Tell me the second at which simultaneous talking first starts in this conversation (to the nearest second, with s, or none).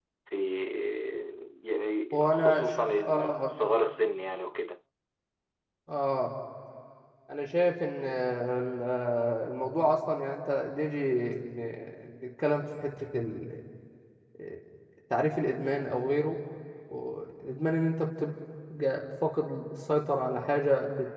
2 s